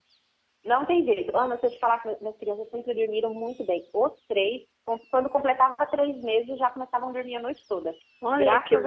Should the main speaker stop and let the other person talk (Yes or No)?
Yes